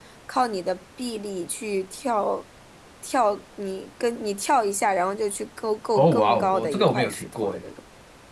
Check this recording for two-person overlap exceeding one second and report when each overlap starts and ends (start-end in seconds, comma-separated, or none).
5.9-7.6